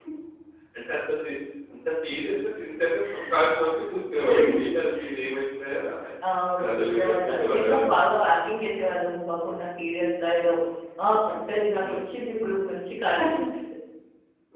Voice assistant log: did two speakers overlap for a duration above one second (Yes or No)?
Yes